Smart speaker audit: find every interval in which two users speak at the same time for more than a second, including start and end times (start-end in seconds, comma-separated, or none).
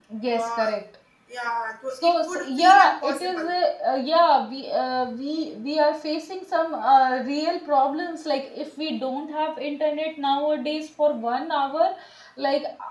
1.9-3.5